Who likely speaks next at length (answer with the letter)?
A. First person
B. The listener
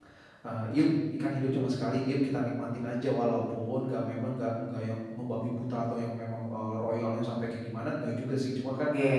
A